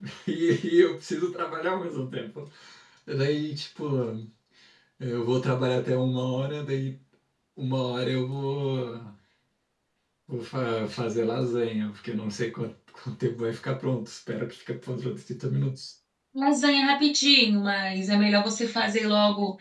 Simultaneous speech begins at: none

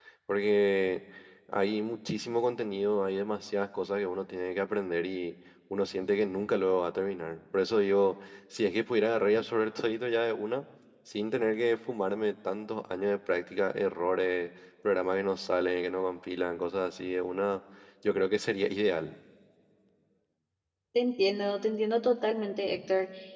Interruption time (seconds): none

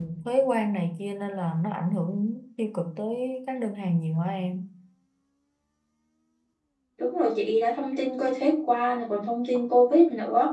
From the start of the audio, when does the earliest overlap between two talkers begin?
none

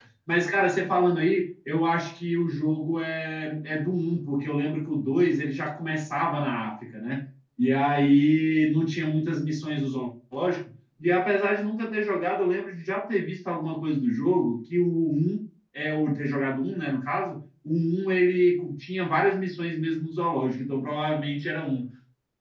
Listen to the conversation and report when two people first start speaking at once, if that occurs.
none

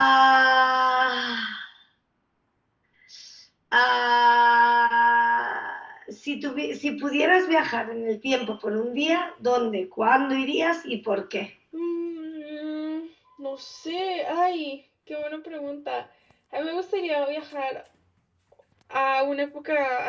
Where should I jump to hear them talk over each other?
none

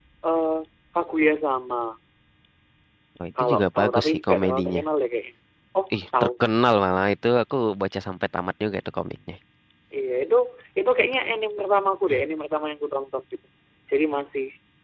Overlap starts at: 3.4 s

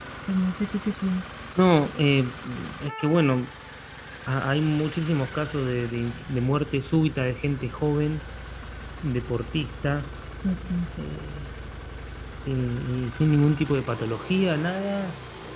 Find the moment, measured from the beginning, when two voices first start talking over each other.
none

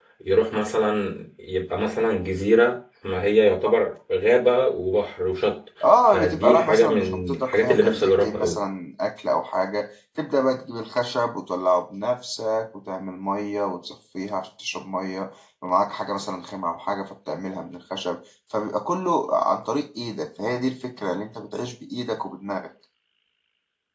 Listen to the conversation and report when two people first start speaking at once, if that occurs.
6.1 s

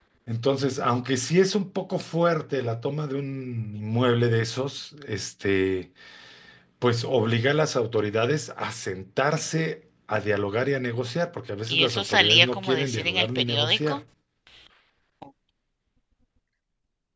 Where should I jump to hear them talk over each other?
11.7 s

